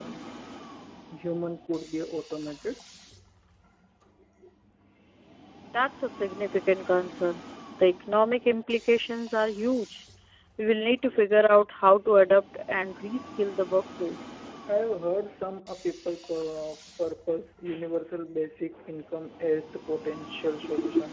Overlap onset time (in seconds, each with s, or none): none